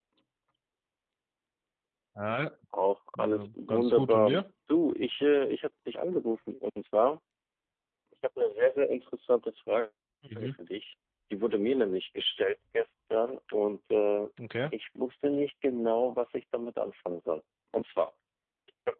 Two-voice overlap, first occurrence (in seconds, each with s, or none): 3.2 s